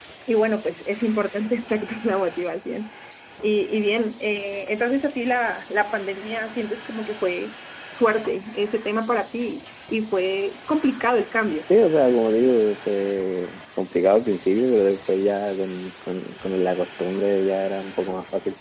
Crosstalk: none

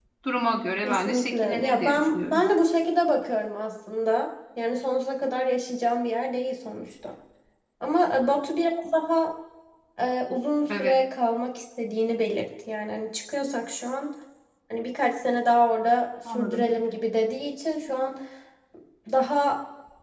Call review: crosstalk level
present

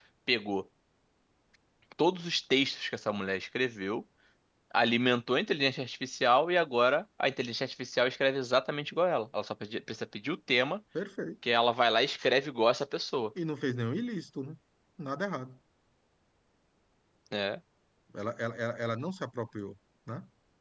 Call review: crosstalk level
none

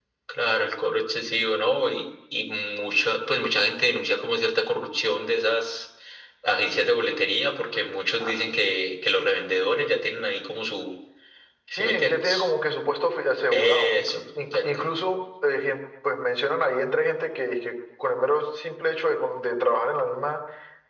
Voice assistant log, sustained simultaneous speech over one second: present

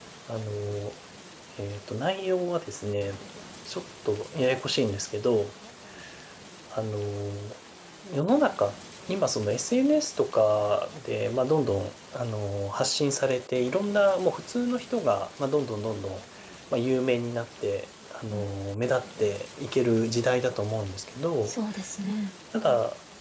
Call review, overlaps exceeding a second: none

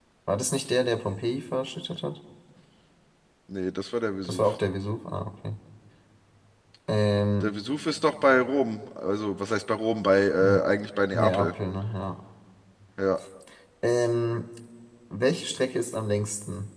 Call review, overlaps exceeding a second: none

